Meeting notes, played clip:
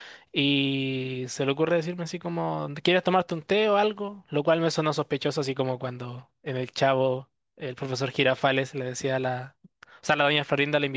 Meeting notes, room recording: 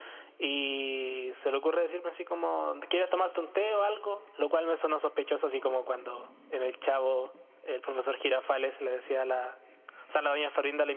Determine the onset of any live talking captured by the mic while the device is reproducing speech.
none

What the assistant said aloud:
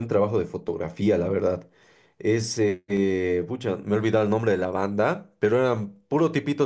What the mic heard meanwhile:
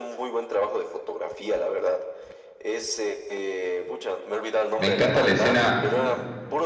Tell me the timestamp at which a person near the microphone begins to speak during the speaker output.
4.8 s

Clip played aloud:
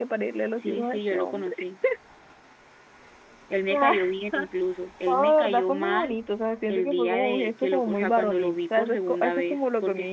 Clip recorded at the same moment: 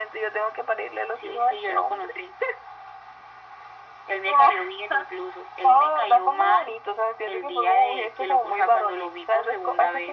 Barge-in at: none

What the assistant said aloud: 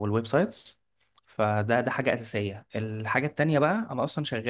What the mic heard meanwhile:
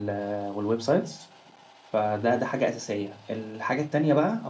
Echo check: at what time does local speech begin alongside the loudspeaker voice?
none

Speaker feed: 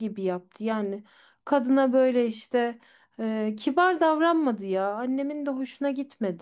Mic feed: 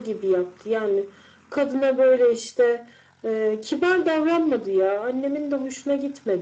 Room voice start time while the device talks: none

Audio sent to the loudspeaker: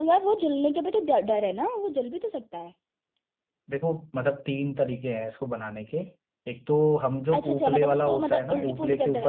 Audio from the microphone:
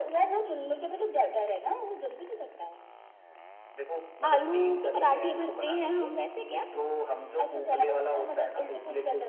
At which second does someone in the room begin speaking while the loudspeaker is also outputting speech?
4.3 s

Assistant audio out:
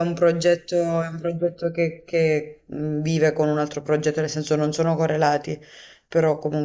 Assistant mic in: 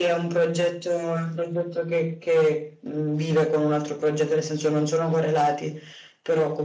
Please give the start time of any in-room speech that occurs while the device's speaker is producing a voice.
none

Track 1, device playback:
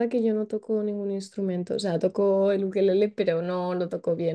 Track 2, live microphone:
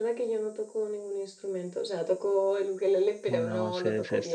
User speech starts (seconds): 3.2 s

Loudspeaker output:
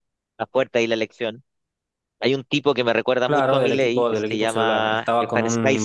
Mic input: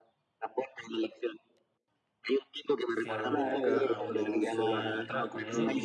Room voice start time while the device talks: 2.9 s

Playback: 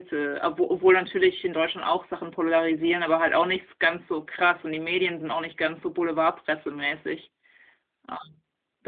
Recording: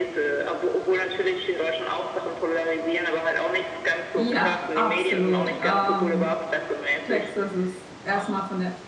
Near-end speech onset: 4.2 s

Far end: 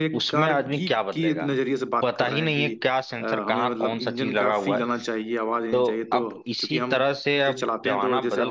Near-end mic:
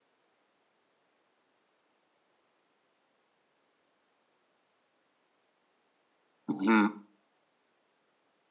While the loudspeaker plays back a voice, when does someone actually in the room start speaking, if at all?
6.5 s

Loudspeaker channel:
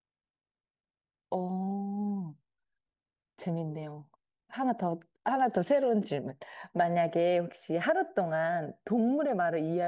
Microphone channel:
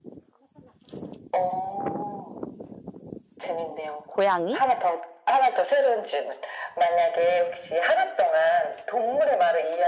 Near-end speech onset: 4.0 s

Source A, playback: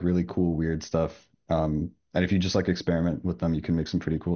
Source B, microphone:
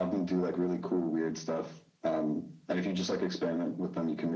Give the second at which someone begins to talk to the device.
none

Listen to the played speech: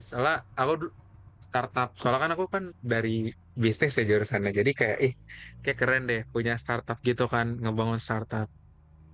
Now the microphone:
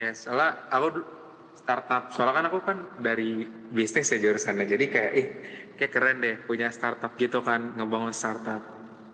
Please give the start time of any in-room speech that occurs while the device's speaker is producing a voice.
none

